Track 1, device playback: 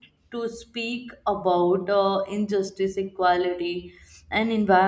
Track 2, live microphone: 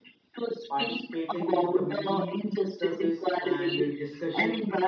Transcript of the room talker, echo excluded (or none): Participating in community service and uh, discussion,